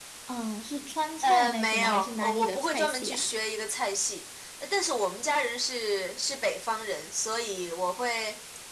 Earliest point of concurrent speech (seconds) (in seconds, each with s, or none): 1.2 s